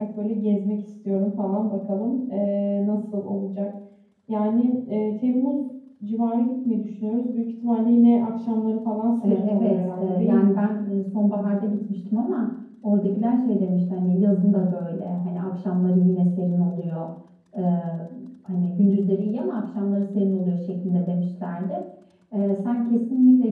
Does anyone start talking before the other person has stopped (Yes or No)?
Yes